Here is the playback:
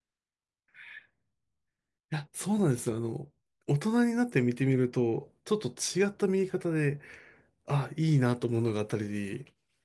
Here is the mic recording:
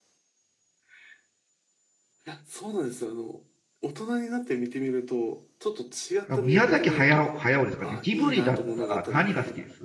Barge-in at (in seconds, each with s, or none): 6.3 s